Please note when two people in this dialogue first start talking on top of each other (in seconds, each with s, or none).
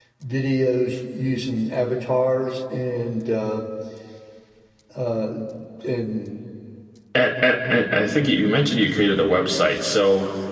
none